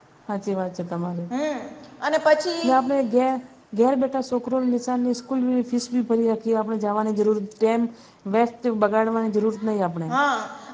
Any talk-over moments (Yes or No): No